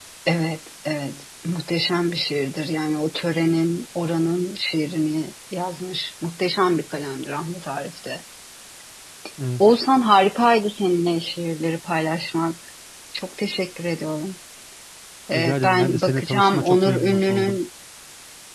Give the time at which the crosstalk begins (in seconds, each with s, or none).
15.3 s